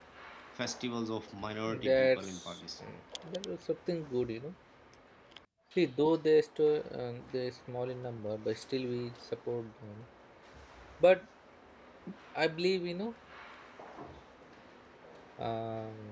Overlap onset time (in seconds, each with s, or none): 1.7 s